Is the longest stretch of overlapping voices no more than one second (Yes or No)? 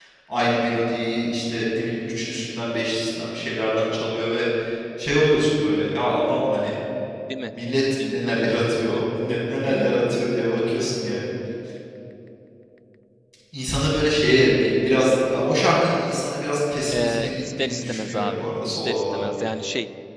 No